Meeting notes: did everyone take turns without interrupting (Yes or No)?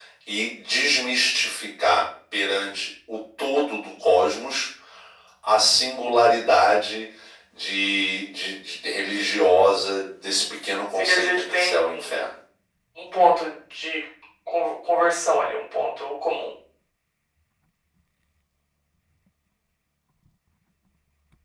No